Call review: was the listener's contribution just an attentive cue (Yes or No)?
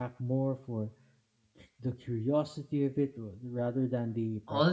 No